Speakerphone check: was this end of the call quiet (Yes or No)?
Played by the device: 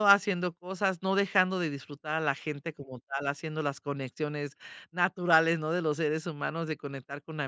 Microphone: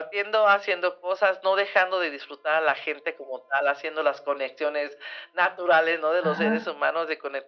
No